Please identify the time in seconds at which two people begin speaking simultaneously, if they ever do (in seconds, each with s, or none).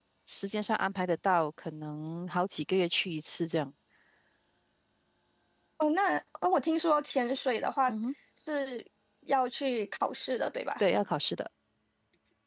none